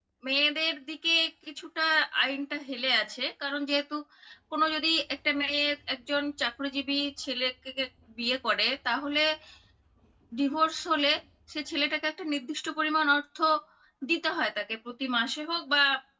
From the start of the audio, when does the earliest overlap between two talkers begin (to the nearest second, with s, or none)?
none